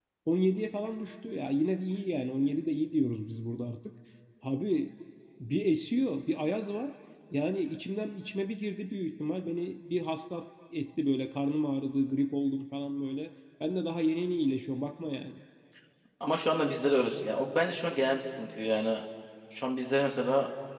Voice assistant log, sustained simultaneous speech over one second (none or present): none